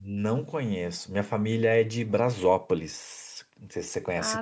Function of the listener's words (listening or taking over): taking over